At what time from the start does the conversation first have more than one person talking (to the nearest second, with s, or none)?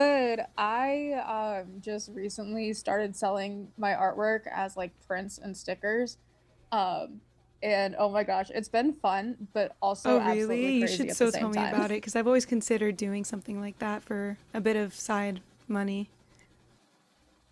10 s